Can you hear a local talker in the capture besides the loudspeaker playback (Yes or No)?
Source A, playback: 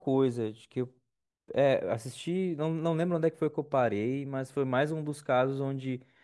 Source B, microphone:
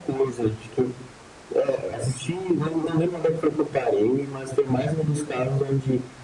No